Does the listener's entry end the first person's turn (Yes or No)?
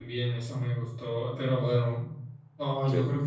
No